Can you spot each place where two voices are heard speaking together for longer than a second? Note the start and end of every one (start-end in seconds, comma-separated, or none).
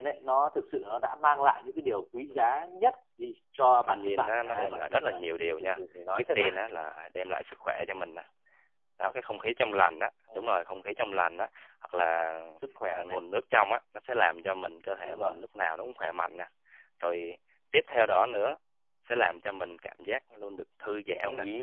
3.9-5.2